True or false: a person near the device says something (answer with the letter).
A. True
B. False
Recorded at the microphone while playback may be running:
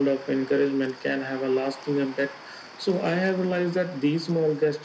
B